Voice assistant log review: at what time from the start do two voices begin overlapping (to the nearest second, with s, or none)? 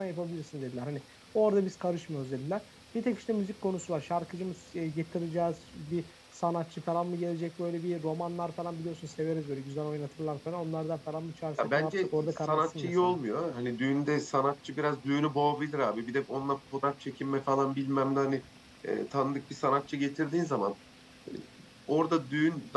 12 s